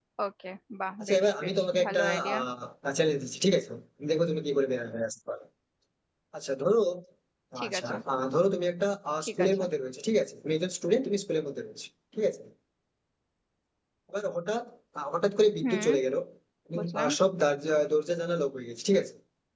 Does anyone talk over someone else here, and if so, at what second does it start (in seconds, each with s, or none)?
1.0 s